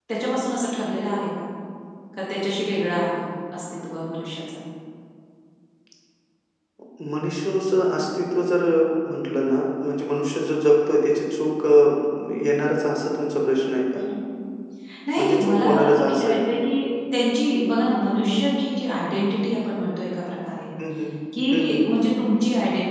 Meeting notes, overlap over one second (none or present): present